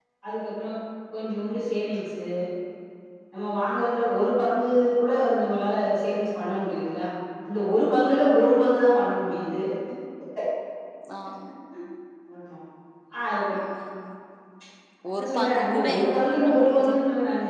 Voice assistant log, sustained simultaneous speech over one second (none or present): present